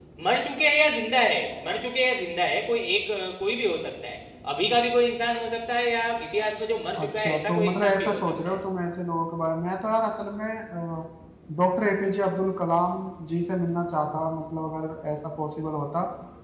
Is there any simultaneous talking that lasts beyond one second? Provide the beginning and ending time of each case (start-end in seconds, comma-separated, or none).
7.0-8.6